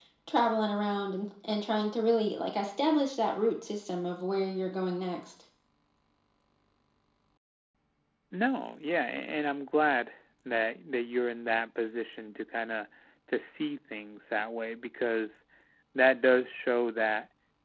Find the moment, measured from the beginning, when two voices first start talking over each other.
none

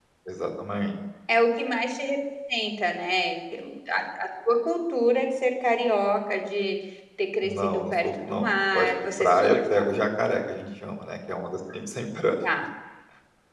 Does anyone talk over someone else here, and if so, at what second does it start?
7.4 s

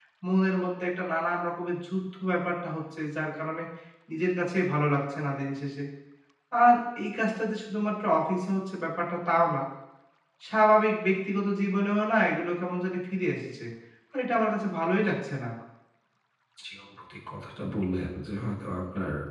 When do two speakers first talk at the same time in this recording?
none

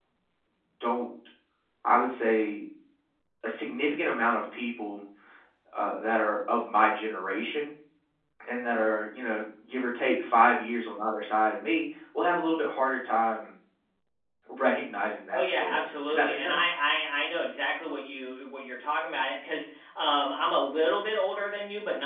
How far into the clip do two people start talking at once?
15.3 s

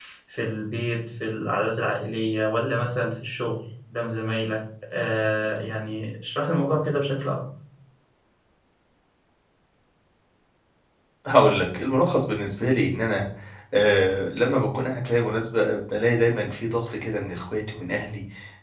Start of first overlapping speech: none

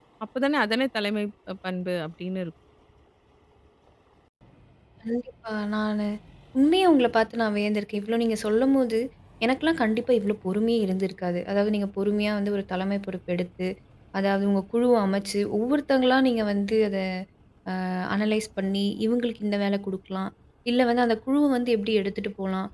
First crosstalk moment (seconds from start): none

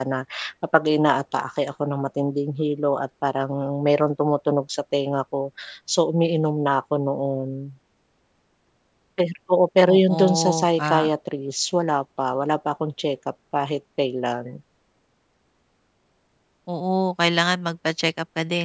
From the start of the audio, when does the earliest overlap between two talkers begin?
9.9 s

